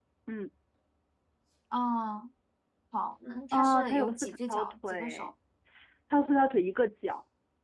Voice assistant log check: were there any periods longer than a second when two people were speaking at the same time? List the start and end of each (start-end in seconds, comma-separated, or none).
3.5-5.3